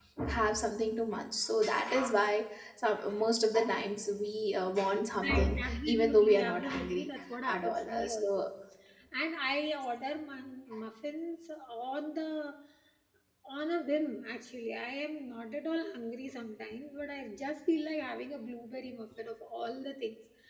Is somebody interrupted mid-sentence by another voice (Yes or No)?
Yes